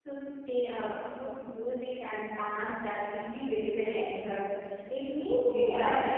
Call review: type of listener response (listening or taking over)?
taking over